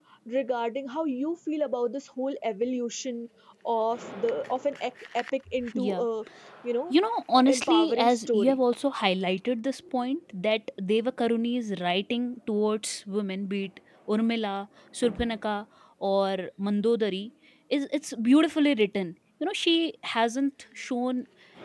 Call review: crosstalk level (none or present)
present